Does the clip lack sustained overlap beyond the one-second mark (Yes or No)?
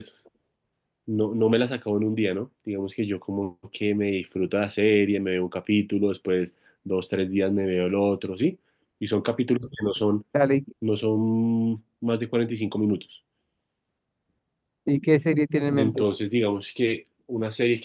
Yes